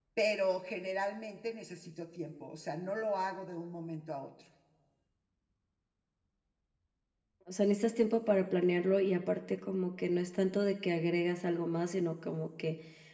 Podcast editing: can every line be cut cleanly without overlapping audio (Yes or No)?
Yes